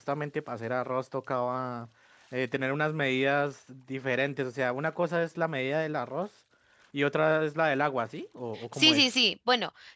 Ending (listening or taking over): taking over